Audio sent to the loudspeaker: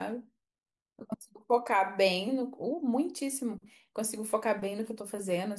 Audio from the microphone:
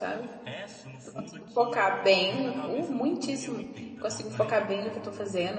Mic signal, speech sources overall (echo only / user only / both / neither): both